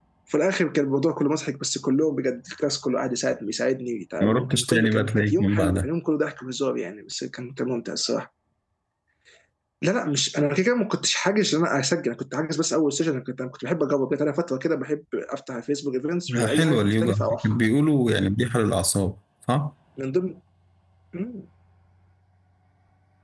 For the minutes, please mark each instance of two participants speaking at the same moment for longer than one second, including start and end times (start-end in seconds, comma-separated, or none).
4.2-5.9, 16.3-17.6